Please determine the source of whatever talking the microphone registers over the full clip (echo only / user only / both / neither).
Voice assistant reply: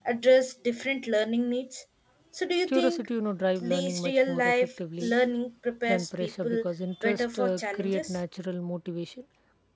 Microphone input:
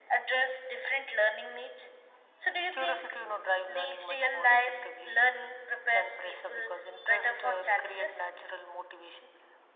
echo only